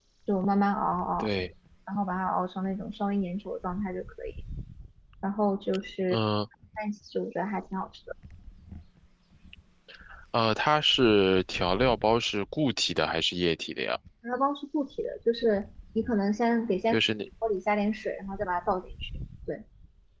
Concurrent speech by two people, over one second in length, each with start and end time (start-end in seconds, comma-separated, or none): none